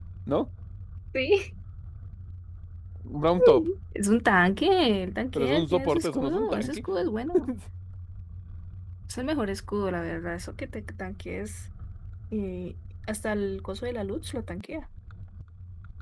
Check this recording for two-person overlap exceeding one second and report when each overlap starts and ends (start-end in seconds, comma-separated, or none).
5.3-6.8